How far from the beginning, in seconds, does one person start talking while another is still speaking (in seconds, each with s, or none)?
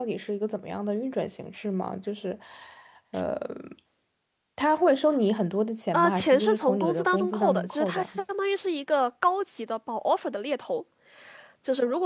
5.9 s